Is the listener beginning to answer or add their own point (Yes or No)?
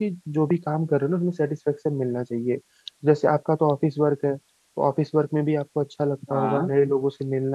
No